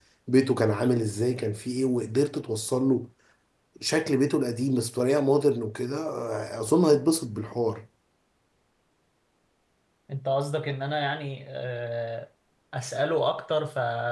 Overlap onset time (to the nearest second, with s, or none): none